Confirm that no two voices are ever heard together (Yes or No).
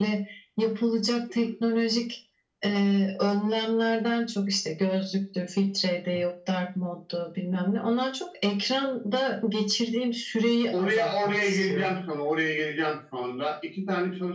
No